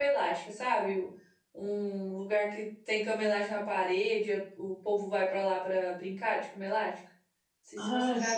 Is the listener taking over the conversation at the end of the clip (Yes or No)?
Yes